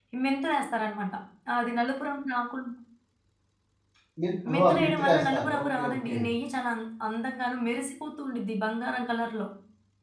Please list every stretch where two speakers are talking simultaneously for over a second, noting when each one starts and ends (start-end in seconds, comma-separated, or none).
4.5-6.2